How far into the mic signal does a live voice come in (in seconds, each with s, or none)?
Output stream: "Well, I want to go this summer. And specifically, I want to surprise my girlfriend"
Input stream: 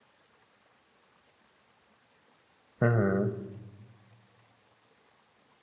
2.8 s